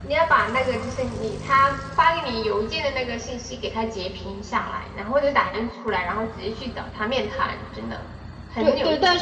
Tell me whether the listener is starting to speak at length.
Yes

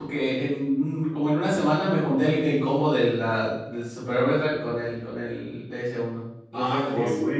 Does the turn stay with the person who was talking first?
No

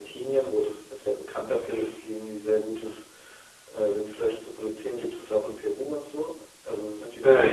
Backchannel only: No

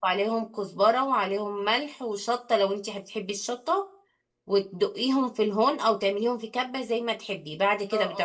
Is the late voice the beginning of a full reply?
Yes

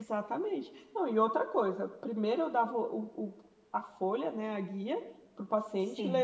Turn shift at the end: No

